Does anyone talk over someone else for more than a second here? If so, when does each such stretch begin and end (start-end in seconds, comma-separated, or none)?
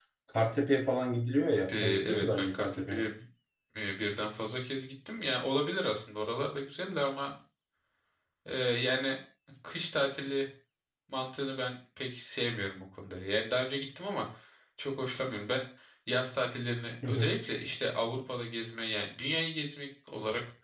1.7-3.0